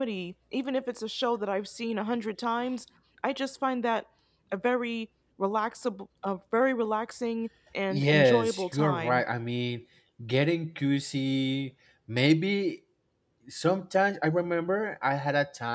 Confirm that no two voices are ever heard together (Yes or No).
No